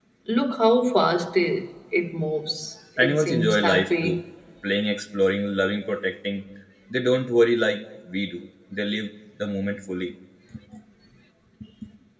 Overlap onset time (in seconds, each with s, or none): 3.0 s